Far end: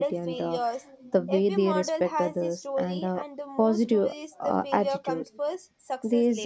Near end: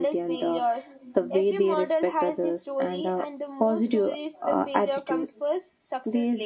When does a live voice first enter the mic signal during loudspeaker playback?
none

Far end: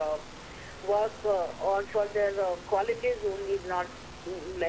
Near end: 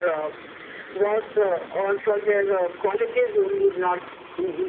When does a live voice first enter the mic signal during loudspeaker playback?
none

